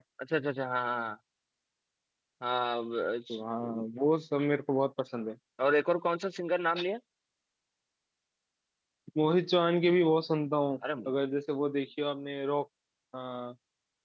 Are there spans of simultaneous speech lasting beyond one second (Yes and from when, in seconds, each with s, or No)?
No